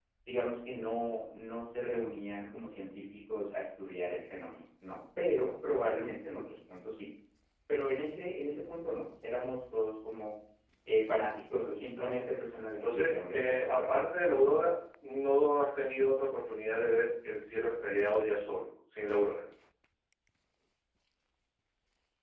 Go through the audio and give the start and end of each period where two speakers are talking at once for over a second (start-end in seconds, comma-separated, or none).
12.7-13.9